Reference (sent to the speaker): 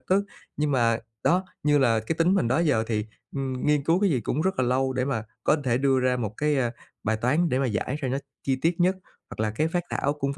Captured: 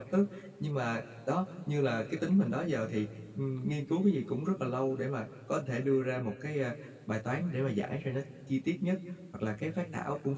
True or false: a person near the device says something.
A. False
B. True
A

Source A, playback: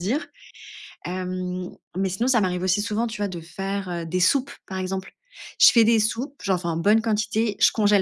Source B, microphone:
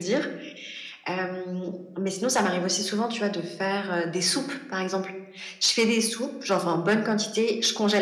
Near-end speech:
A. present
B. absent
B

